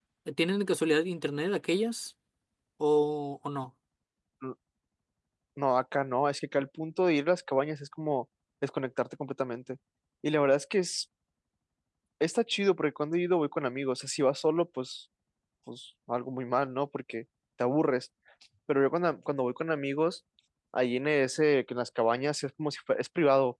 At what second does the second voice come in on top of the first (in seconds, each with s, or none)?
none